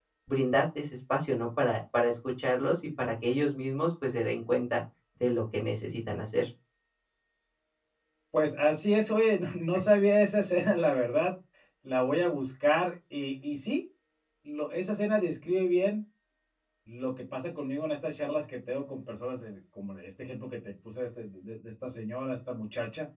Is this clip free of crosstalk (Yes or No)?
Yes